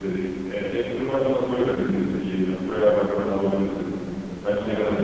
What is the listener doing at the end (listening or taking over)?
listening